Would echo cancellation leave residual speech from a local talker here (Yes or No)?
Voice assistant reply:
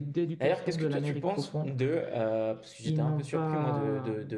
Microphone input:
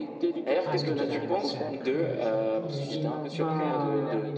Yes